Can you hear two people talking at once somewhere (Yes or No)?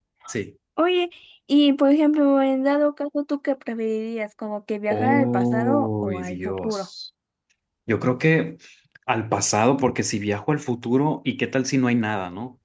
Yes